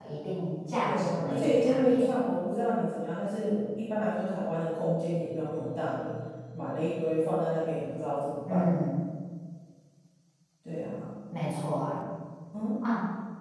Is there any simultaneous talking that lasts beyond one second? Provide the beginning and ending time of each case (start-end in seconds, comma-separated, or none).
0.8-2.1